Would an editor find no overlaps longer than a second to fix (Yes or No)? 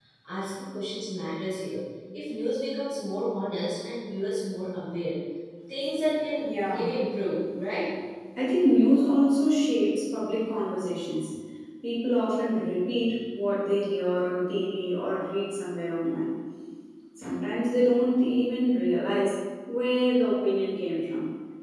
Yes